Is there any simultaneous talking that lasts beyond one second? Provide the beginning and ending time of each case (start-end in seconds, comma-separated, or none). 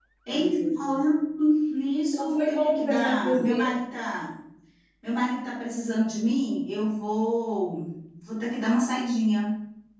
2.1-3.6